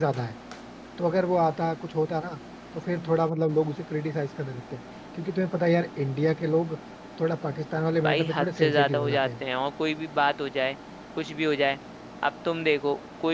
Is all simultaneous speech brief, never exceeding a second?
No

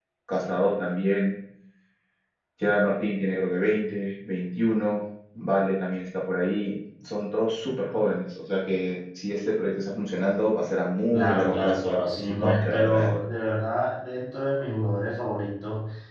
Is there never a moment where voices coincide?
No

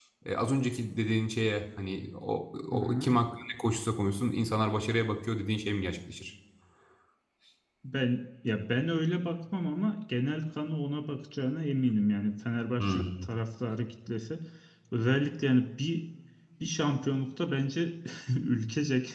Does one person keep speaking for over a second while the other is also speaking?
No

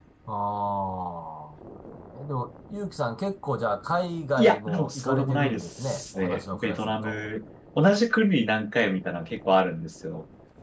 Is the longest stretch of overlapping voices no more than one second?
No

